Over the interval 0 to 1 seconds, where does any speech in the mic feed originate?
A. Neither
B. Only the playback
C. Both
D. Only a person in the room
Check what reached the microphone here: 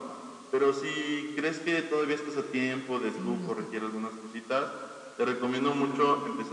B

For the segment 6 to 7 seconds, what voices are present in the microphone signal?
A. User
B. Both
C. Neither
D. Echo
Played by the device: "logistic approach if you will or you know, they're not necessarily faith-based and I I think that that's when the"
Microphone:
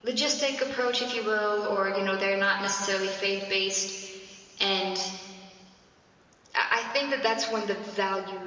D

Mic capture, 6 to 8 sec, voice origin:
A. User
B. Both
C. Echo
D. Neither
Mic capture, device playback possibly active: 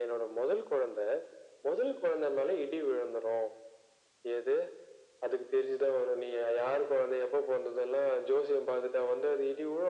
C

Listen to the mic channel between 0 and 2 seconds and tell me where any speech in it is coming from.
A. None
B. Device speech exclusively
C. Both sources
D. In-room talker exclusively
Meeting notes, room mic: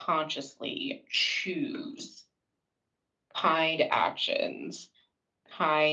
B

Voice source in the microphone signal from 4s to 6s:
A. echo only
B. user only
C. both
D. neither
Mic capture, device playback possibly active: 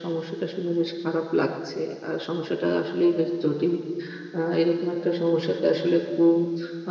A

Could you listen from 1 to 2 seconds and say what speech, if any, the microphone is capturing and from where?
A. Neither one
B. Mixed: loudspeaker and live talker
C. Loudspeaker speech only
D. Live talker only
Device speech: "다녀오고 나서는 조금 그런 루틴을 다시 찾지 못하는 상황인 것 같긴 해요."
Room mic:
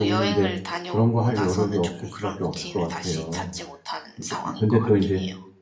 B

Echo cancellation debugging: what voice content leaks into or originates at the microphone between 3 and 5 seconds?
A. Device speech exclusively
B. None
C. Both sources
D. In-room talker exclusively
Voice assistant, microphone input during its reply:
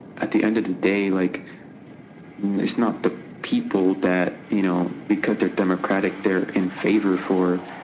A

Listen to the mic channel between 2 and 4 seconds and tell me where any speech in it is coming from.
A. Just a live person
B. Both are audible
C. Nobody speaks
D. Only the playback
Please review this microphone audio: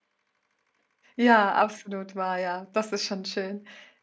A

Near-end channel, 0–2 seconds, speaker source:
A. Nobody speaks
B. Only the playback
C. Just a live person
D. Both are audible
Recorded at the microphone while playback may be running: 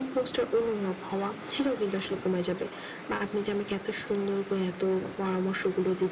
B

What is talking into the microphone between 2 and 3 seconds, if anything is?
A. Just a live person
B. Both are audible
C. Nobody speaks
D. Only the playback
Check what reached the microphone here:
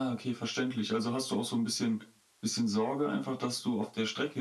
D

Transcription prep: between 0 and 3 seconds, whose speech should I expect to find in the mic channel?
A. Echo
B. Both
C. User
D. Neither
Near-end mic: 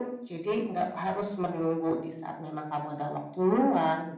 A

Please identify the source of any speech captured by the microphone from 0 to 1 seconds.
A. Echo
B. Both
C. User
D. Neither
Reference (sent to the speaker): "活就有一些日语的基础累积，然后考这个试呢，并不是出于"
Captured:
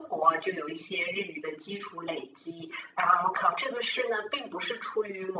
A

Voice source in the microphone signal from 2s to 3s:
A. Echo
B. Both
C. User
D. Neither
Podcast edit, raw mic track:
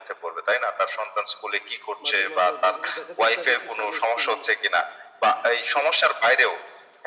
B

